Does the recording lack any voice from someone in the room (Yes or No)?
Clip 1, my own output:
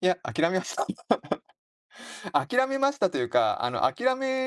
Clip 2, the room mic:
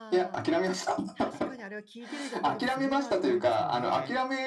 No